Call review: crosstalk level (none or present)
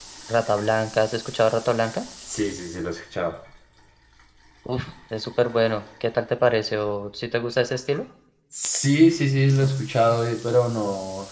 none